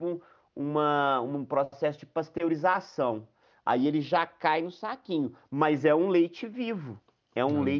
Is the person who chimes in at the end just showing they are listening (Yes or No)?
Yes